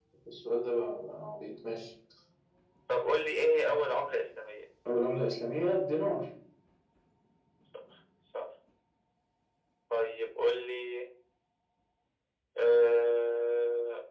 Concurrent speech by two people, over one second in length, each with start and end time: none

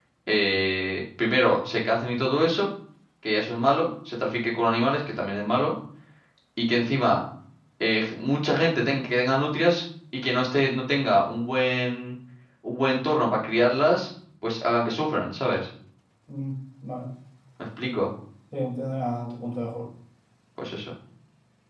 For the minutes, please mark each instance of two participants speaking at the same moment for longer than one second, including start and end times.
none

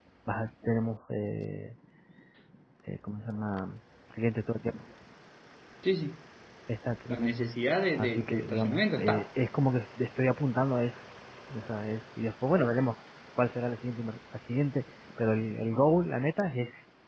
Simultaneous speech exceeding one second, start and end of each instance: 8.0-9.2

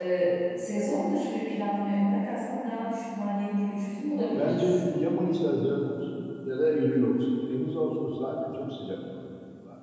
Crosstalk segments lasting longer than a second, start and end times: none

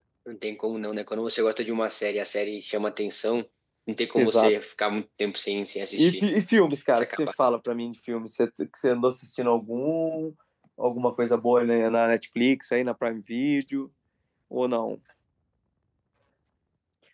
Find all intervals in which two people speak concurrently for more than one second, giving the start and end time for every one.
none

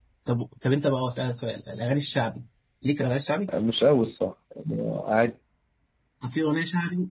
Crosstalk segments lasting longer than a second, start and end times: none

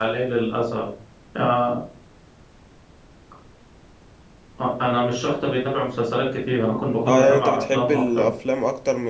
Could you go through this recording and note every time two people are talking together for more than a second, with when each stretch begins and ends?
7.1-8.3

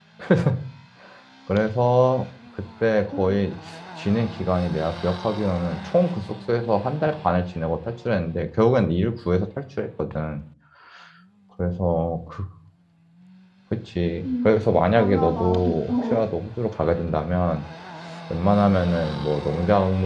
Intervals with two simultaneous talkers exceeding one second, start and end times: 14.9-16.2

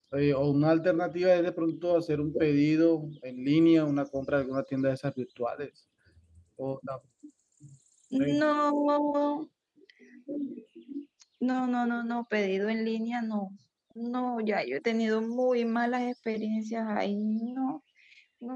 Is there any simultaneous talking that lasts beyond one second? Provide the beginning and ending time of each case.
none

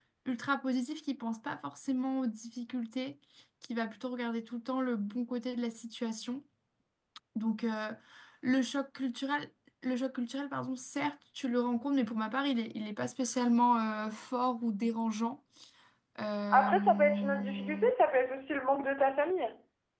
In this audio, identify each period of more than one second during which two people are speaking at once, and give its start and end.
16.5-17.8

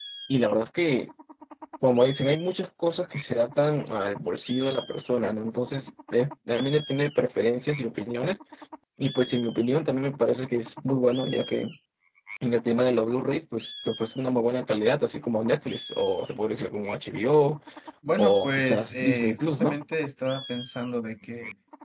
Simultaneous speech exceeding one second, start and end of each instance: 18.2-19.8

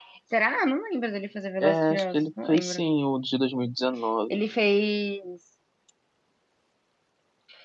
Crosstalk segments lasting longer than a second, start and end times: 1.6-2.9

